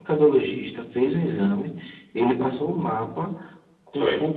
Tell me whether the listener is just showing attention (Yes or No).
Yes